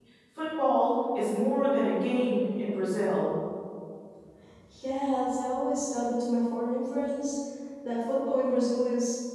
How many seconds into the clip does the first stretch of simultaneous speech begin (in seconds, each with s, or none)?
none